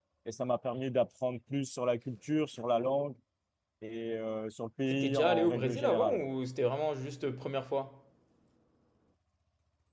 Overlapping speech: Yes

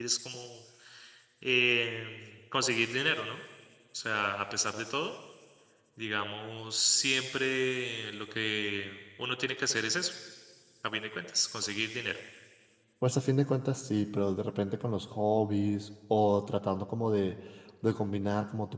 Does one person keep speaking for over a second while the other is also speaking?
No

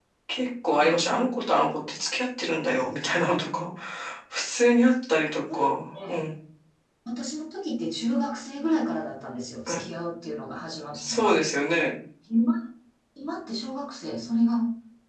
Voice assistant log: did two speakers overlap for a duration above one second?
No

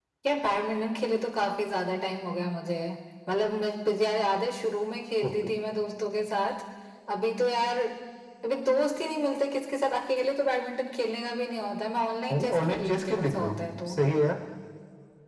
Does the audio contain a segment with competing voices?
Yes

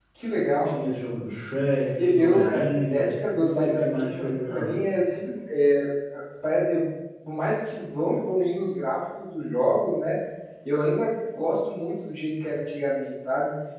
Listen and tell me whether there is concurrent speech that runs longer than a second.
Yes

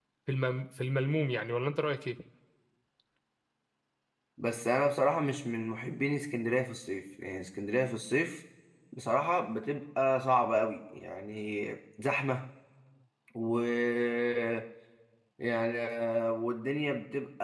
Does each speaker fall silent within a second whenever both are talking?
Yes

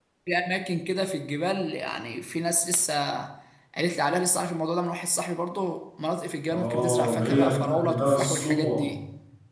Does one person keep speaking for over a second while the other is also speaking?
Yes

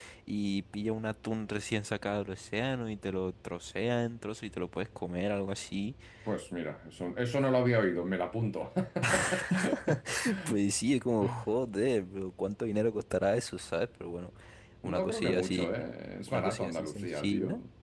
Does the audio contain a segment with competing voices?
Yes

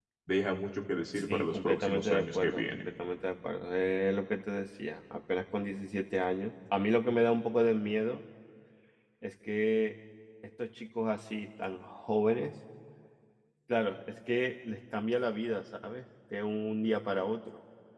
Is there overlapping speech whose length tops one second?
Yes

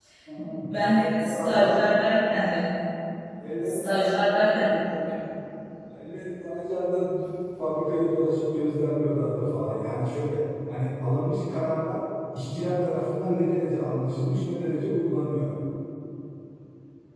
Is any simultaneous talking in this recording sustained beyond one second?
Yes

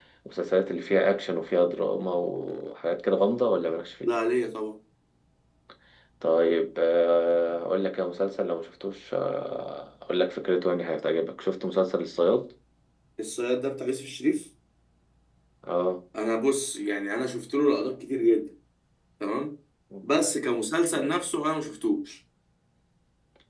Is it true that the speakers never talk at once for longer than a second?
Yes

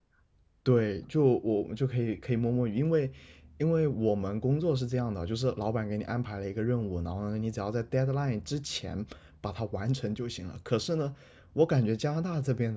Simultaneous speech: No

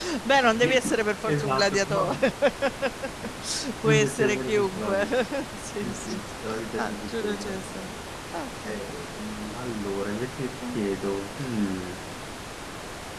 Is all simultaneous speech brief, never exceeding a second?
No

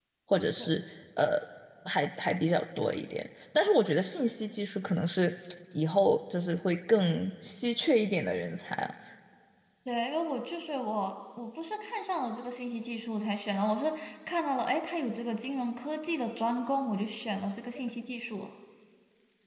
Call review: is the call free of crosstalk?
Yes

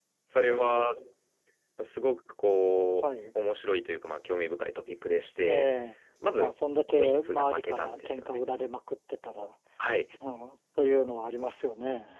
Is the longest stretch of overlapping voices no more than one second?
No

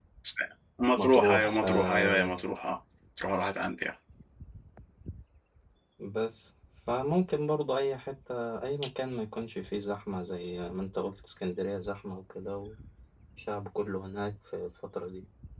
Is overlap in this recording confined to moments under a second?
No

